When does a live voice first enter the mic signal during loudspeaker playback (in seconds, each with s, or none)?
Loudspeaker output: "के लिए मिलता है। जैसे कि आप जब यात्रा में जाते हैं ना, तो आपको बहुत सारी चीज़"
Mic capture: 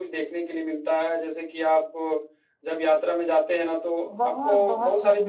4.0 s